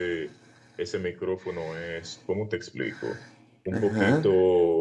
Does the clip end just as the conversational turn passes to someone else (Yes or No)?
No